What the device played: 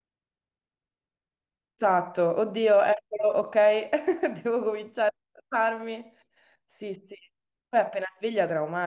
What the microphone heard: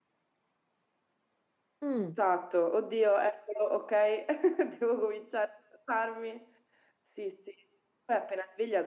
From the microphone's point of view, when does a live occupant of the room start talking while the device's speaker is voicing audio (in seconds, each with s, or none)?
1.8 s